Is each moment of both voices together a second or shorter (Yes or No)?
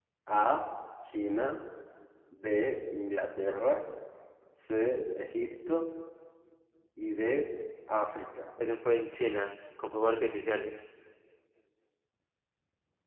Yes